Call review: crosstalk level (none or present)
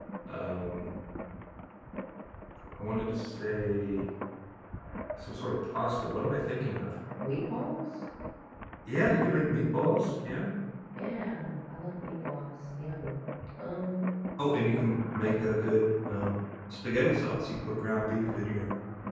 none